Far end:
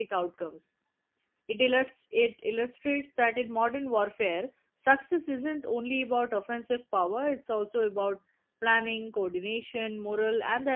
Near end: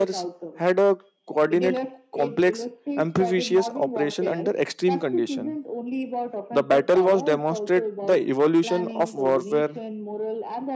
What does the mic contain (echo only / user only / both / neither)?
both